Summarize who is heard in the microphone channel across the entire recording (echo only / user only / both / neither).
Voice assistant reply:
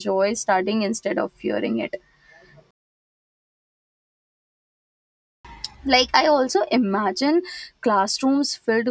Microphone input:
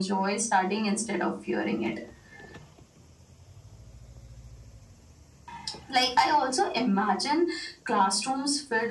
echo only